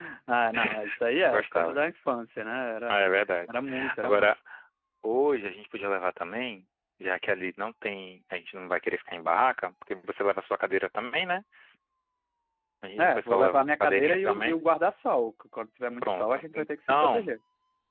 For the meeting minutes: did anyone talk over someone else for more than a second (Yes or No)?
Yes